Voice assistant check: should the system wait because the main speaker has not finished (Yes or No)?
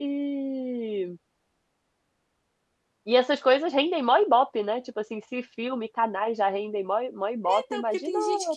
No